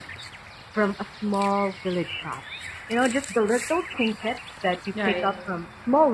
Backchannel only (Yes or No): Yes